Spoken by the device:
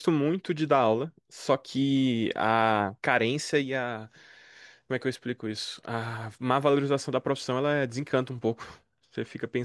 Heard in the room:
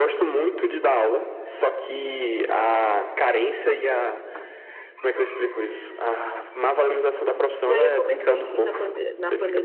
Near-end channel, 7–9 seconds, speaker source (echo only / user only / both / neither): both